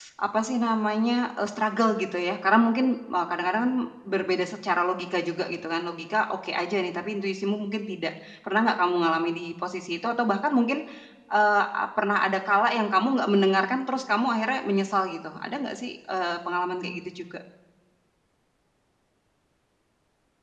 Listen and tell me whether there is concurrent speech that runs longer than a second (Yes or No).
No